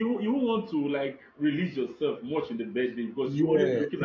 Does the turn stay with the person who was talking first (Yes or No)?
Yes